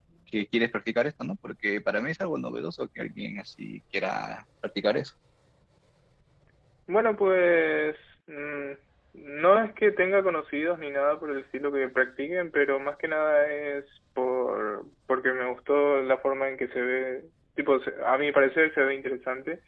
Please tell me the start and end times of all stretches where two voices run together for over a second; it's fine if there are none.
none

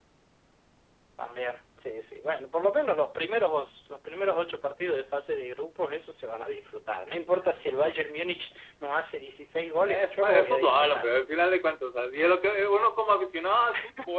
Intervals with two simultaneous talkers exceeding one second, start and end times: 9.8-11.1

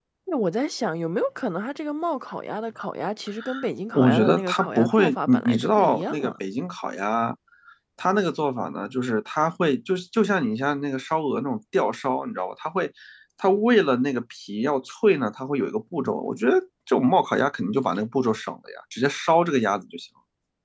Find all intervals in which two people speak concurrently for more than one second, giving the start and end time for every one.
3.9-6.3

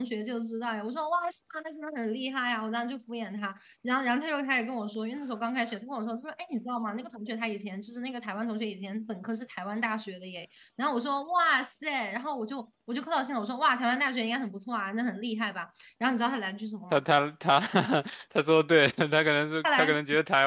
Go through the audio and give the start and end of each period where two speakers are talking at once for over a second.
none

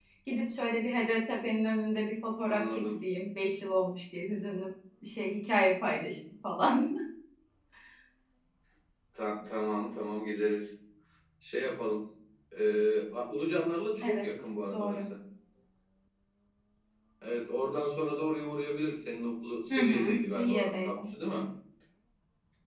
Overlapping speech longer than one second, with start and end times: 19.7-21.1

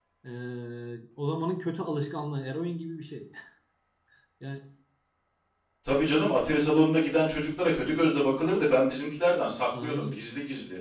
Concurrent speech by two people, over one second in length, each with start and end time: none

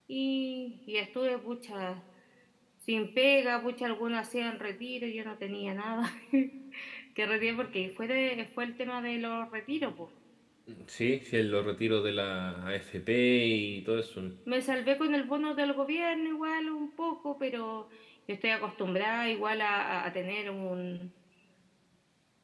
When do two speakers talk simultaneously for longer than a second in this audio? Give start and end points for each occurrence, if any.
none

